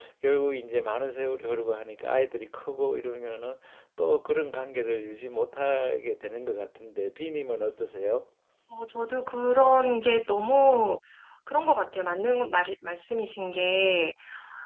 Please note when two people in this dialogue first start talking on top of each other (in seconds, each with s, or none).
none